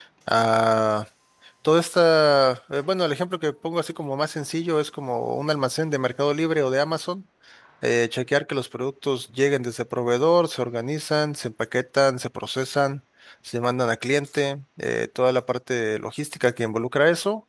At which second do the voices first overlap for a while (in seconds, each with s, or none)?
none